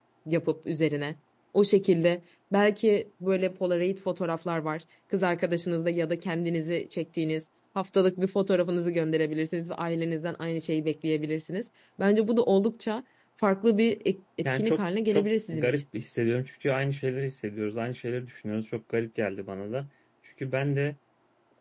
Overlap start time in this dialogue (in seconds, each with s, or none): 14.4 s